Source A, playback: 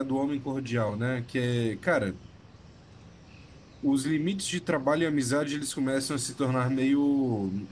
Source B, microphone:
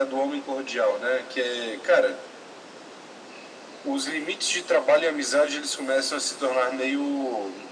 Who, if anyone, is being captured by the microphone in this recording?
echo only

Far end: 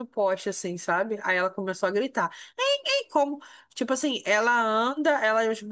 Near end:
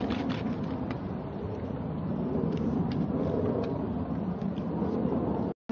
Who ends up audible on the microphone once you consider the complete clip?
neither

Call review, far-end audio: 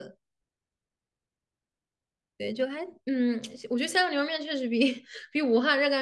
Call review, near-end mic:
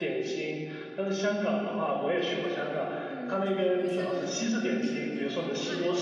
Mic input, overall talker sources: both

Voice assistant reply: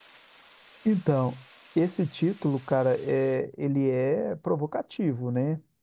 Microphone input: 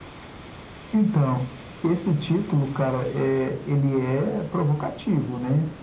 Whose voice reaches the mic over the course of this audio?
echo only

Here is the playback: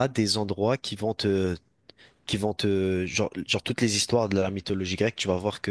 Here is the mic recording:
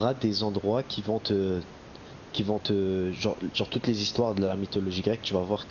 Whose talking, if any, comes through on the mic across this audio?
echo only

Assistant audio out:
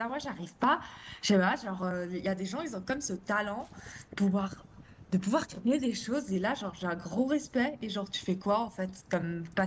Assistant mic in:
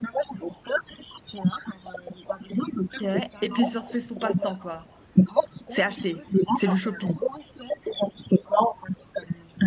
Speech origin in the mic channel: both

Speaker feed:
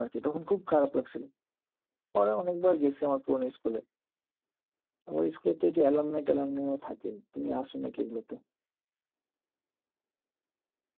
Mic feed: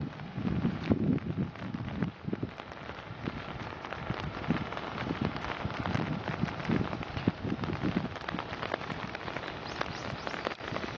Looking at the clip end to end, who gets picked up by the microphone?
neither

